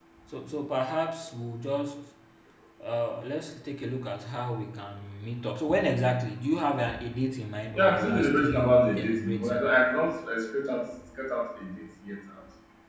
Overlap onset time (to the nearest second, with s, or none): 8 s